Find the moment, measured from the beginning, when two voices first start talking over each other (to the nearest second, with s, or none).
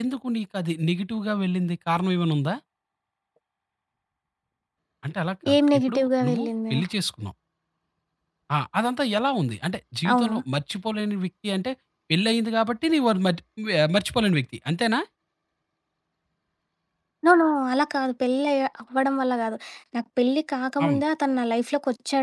6 s